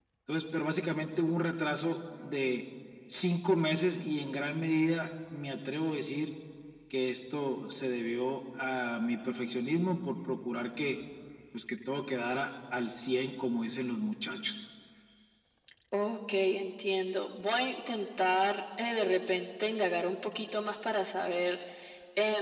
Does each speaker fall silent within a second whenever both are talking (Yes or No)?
Yes